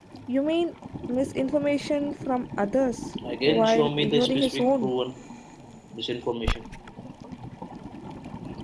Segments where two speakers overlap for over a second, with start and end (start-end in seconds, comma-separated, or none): 3.4-4.9